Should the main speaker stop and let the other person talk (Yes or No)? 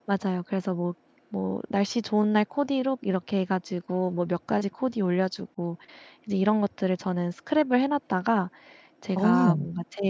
No